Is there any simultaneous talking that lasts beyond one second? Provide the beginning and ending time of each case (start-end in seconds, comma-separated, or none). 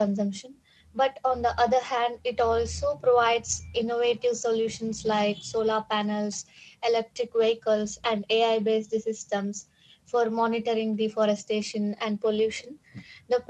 none